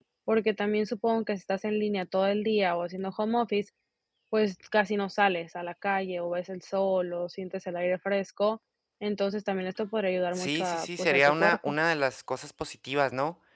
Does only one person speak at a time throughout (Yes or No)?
No